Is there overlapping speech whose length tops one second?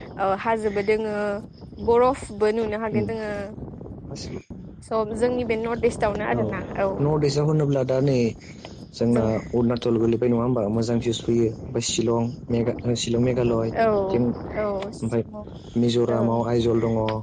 No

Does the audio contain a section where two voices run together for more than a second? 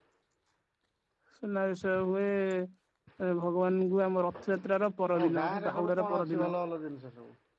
Yes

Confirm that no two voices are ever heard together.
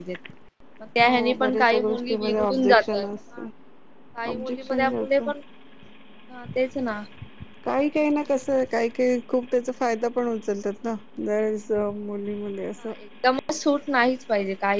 No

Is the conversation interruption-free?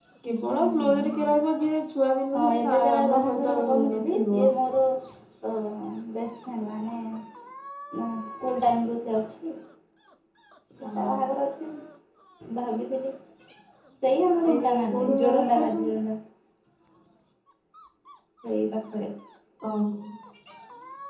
No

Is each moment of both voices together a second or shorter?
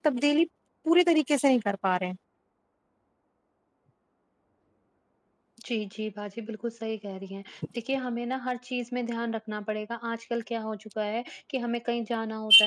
Yes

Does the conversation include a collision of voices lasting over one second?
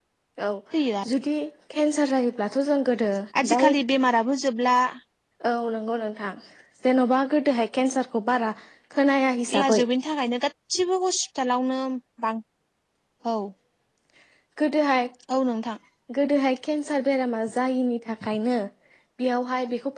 No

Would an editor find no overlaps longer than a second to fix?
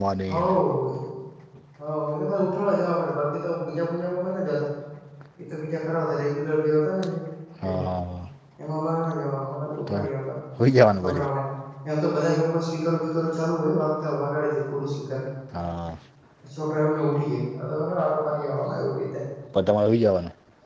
Yes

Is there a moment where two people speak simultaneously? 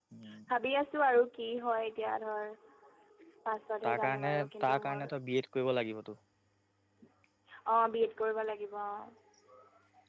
Yes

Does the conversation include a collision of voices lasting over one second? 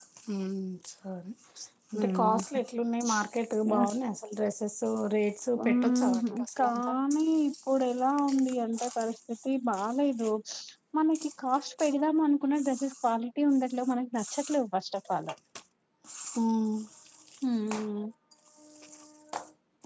Yes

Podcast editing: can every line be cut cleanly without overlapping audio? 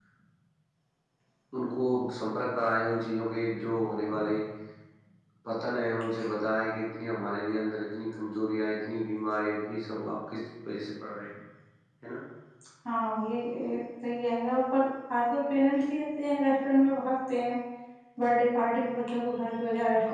Yes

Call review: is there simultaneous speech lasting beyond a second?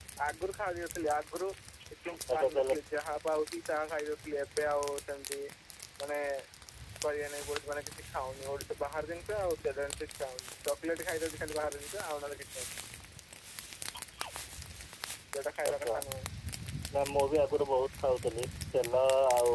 No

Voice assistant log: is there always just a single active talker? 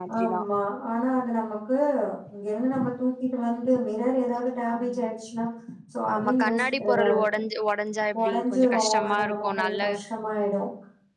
No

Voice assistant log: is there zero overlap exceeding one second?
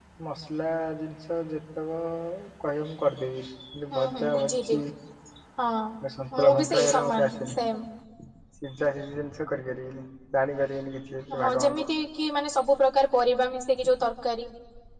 No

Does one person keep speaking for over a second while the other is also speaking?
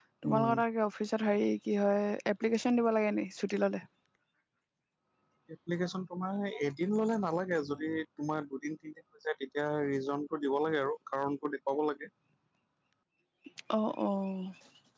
No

